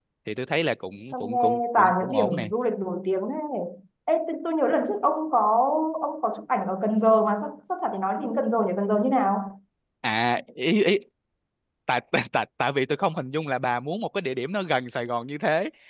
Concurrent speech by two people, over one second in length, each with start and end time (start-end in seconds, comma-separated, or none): 1.1-2.5